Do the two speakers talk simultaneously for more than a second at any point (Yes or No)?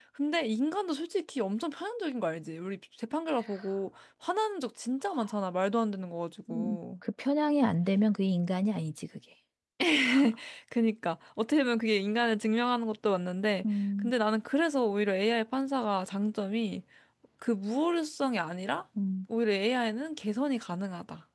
No